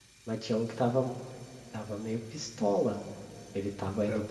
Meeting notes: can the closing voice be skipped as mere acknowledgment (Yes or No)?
Yes